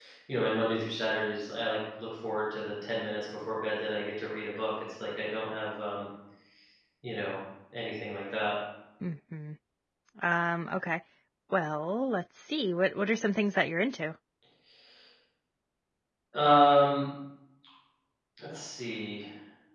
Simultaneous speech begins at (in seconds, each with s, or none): none